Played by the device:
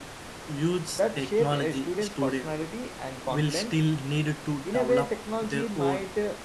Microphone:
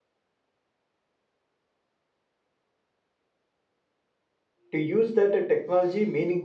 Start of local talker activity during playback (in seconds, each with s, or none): 4.7 s